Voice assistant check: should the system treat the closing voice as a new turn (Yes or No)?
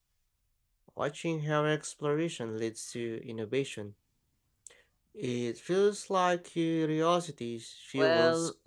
Yes